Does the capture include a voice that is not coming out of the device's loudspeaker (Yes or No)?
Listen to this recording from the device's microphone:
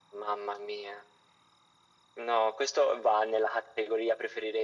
No